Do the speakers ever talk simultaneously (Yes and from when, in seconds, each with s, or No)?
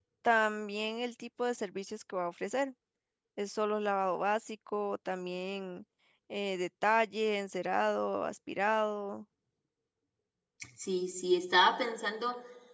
No